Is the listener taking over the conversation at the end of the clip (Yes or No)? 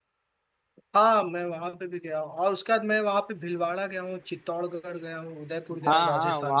Yes